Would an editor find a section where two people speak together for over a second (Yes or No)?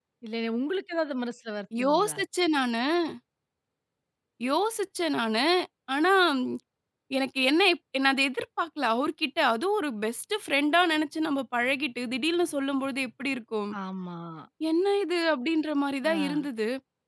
No